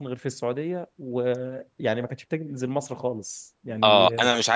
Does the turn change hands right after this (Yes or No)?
Yes